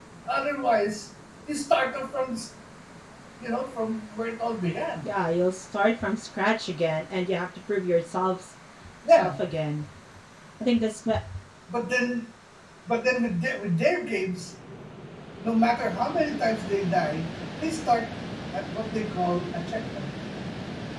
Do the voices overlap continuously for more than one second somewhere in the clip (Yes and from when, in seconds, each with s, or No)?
No